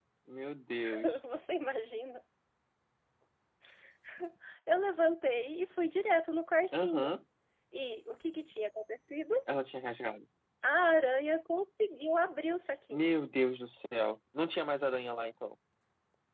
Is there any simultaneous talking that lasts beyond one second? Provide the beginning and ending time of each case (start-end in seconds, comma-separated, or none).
none